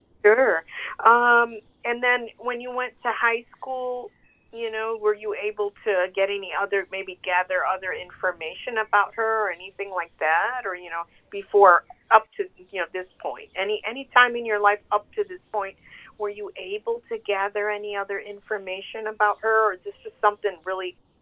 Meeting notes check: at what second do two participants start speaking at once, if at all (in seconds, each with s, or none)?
none